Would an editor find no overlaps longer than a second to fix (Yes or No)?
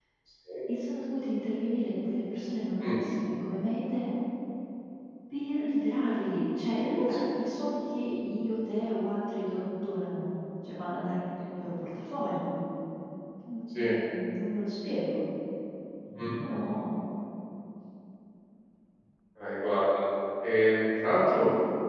Yes